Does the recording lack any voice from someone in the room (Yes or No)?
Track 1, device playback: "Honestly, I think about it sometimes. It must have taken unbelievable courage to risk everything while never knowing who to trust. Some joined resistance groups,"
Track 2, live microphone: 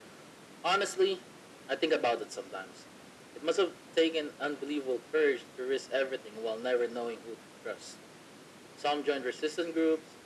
Yes